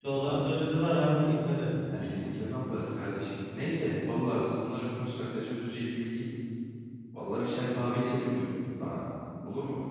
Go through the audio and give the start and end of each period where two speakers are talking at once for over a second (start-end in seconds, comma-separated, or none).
none